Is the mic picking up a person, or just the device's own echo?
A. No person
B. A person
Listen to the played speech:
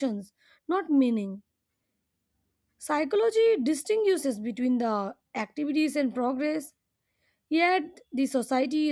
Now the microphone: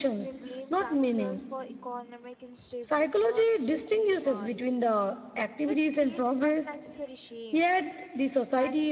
B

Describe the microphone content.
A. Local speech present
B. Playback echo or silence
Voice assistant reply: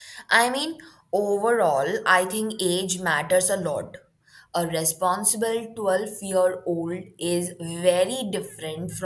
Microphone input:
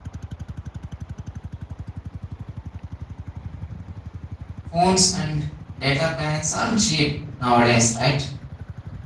A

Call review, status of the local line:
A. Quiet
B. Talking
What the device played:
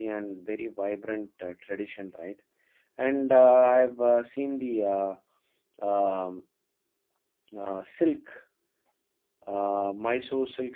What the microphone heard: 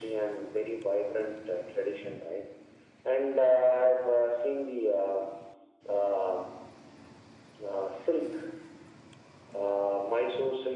A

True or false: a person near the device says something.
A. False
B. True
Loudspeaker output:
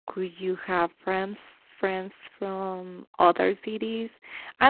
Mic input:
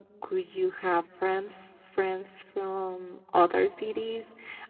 A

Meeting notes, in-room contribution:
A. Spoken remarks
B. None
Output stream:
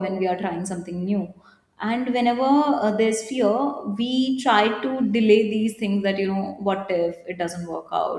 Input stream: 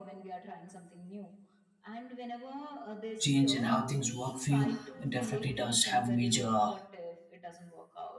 A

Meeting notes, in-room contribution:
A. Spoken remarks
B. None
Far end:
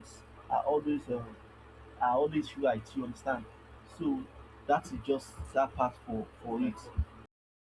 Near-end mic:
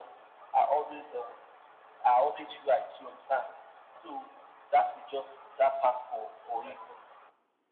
B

